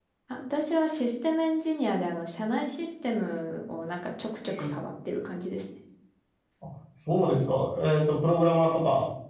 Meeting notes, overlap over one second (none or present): none